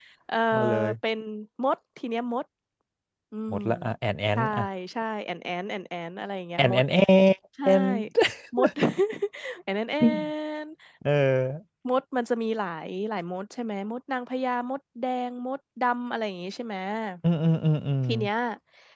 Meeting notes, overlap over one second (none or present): none